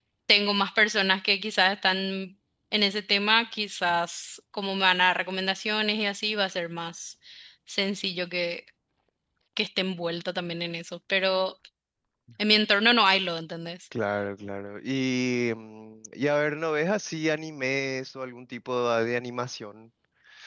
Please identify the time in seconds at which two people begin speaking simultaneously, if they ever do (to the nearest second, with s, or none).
none